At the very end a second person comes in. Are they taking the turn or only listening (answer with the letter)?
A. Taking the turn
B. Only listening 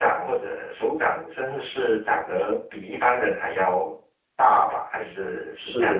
A